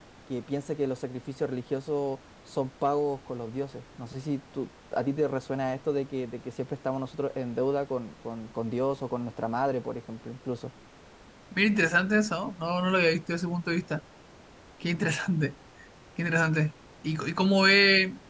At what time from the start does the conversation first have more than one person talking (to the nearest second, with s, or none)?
none